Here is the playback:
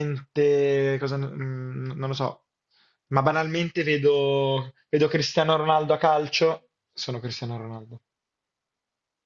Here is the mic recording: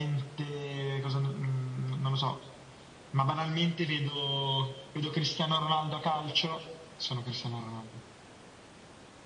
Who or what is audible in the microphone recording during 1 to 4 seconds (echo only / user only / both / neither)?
echo only